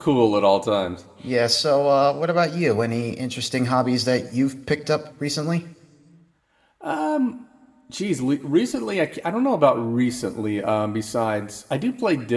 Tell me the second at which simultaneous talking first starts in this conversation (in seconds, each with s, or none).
none